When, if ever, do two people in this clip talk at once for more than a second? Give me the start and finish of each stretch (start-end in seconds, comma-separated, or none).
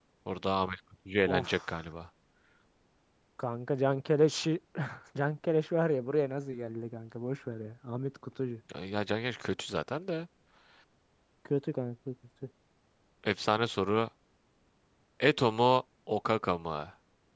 none